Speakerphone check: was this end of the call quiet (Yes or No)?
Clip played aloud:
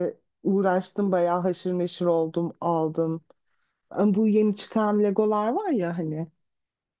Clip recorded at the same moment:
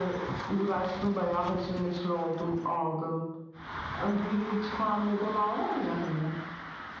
Yes